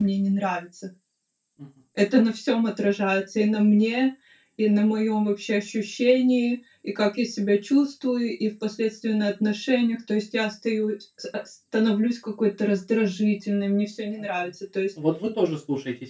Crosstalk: none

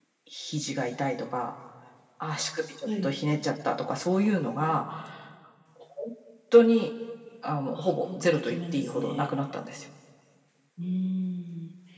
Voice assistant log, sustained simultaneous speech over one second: present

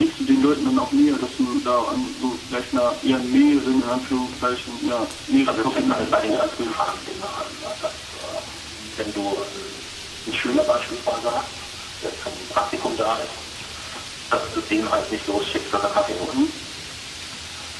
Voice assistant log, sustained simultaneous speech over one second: present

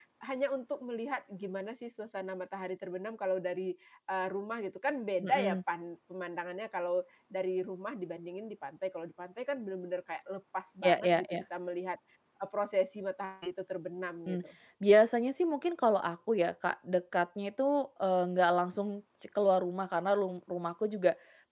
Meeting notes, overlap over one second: none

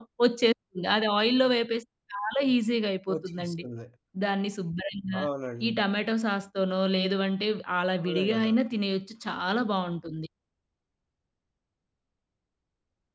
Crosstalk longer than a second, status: none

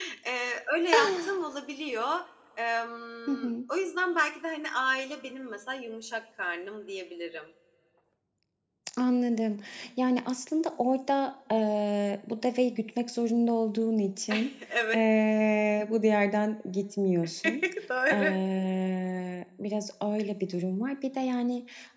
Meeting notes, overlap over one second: none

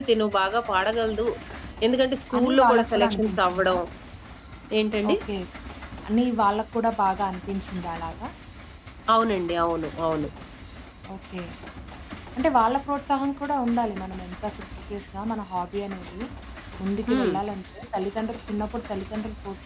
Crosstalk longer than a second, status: present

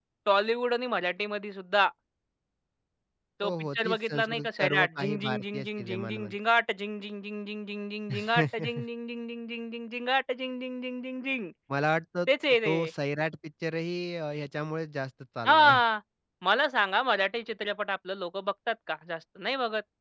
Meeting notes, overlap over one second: present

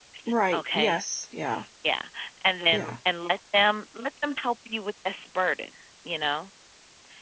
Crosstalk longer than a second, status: none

